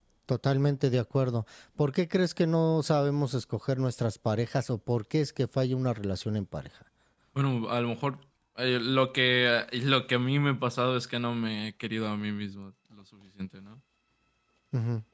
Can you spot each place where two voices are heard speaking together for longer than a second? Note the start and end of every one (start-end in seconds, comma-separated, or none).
none